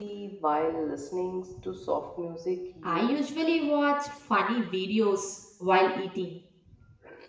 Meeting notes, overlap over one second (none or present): none